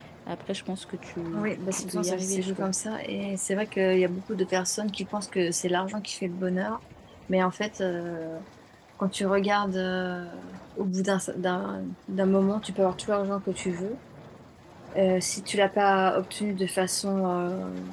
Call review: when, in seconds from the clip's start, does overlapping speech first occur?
1.3 s

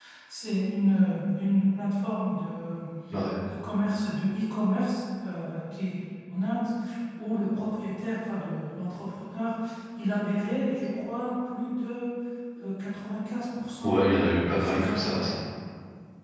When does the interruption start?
13.8 s

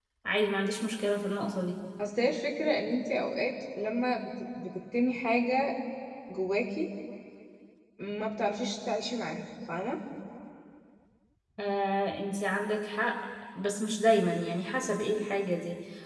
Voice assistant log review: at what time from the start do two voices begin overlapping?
none

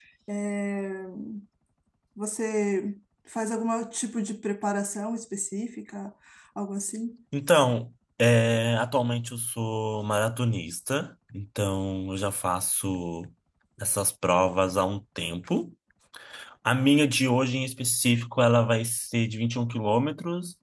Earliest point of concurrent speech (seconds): none

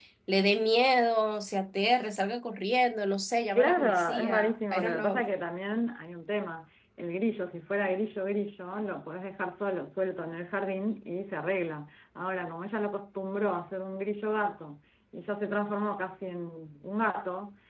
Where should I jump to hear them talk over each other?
3.5 s

